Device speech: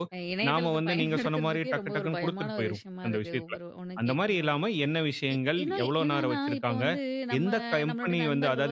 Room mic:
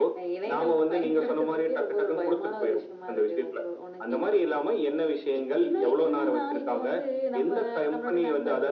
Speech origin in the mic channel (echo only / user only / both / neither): echo only